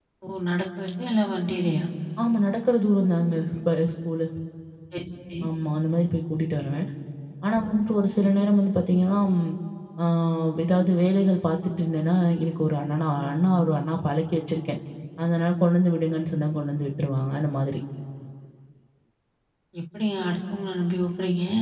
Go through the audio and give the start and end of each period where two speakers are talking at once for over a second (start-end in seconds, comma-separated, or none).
none